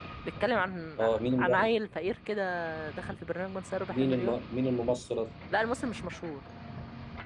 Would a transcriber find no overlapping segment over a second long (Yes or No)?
Yes